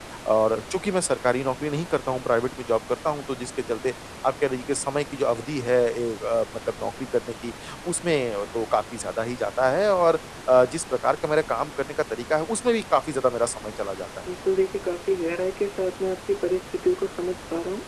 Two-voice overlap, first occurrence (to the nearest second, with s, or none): none